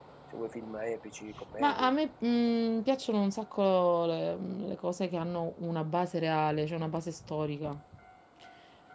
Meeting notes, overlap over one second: none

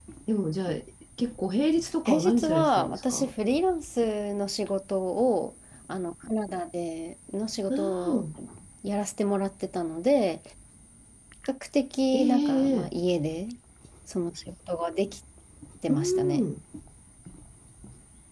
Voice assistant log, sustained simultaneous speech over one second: present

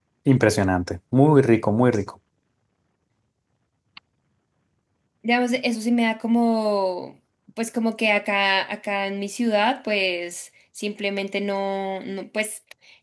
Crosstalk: none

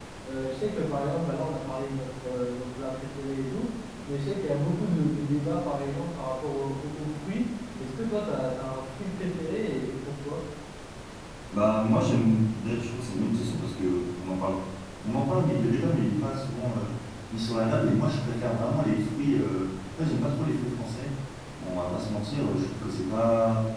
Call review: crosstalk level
none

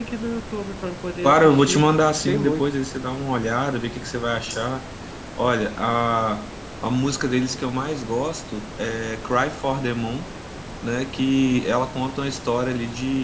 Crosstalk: present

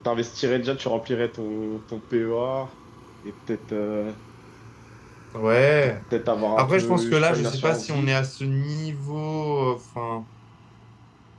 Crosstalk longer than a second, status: present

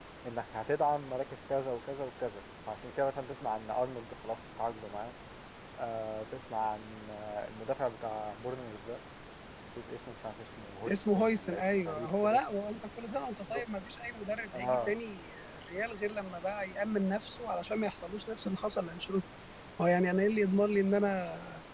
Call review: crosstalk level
present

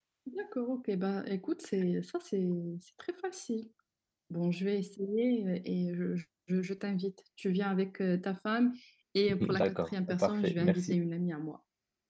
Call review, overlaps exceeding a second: present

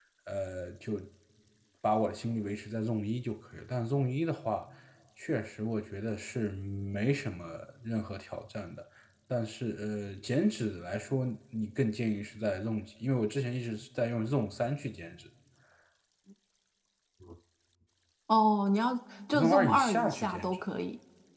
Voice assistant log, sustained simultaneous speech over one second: present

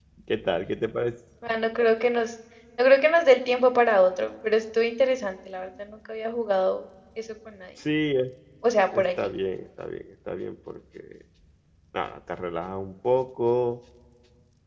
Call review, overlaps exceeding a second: none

